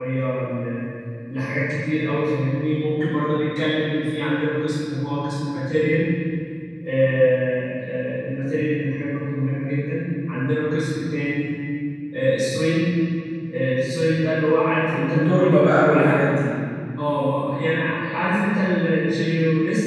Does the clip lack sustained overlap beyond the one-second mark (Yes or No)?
No